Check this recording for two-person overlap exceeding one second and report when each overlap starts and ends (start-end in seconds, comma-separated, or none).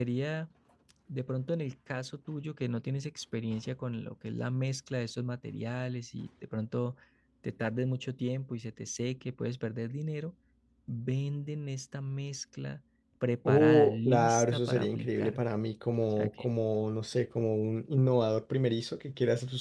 13.5-15.4